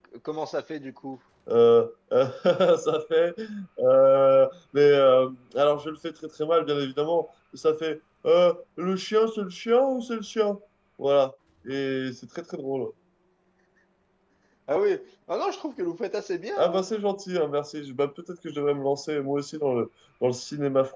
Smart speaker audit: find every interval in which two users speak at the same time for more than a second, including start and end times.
none

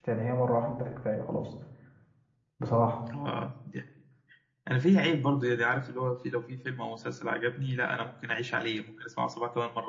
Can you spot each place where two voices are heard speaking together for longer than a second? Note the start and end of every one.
none

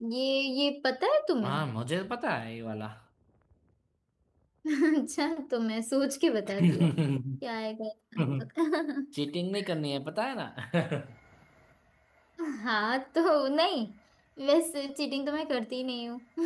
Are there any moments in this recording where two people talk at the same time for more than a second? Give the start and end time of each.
none

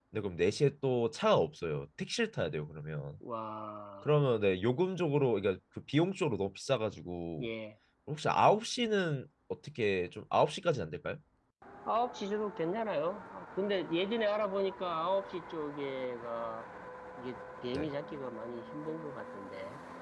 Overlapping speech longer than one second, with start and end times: none

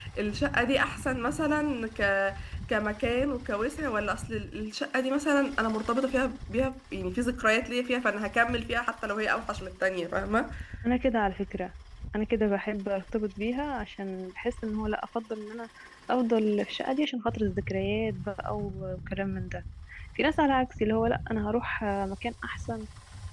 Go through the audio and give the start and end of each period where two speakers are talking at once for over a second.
none

